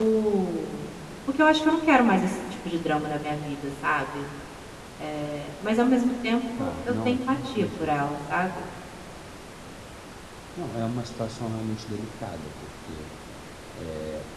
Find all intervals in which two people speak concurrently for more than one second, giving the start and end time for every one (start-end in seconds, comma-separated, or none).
6.6-7.9